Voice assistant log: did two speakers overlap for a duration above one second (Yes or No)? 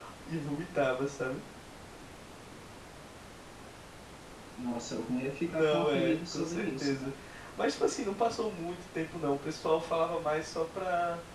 Yes